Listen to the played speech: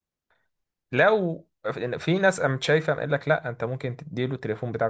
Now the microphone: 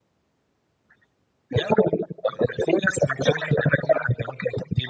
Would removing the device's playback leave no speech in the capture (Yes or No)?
Yes